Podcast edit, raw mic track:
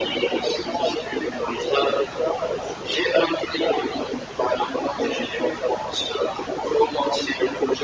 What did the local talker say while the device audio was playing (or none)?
none